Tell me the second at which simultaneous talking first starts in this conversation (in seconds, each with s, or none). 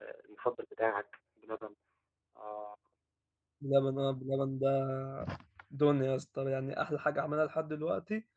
none